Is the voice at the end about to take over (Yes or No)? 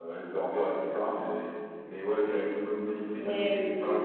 No